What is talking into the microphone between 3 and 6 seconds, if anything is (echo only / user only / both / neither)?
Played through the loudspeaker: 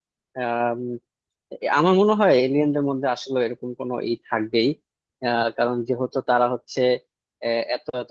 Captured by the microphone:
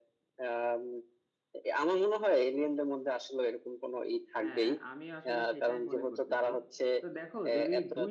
both